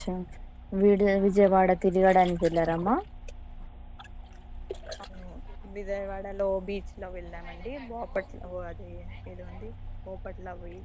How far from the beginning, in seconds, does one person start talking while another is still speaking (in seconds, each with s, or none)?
none